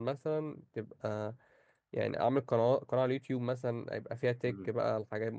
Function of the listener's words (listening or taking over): listening